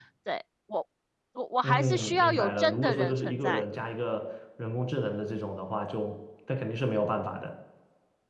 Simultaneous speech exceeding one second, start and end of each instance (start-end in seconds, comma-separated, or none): 1.6-3.6